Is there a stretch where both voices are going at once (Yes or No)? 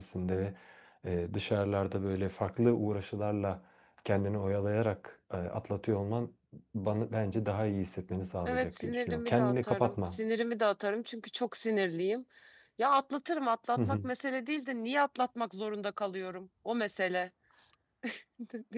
Yes